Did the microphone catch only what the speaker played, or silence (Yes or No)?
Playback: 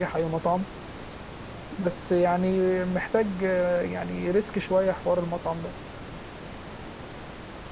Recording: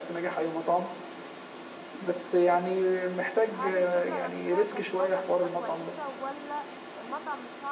No